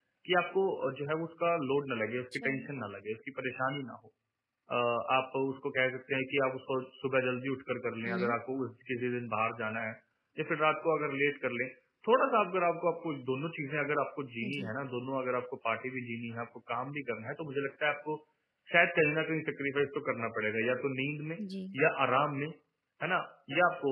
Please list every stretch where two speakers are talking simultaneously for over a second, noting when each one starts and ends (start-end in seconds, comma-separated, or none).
none